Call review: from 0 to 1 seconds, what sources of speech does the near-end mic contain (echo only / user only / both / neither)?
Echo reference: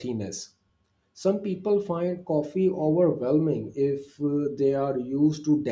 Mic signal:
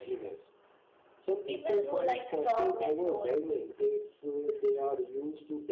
echo only